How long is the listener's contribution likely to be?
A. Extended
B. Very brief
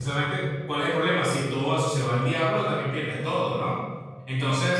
B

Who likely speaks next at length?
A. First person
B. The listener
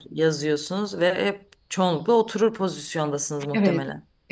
B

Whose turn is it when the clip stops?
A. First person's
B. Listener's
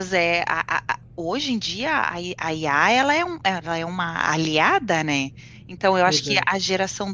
A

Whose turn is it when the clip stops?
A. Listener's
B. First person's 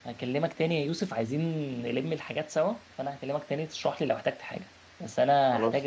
B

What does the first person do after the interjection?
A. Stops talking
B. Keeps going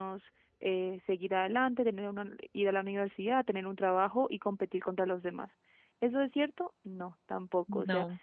B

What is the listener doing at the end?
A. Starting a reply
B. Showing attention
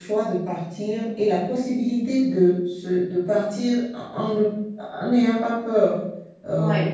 B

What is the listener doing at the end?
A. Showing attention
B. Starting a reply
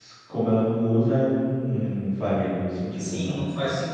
B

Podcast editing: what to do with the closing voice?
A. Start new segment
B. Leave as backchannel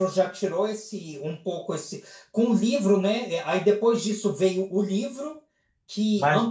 A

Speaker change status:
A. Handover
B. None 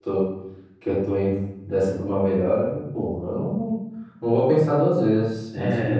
A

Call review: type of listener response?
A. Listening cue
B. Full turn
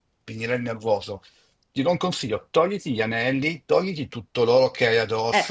B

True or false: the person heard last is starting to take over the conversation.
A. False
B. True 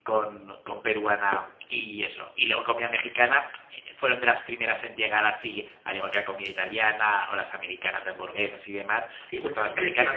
B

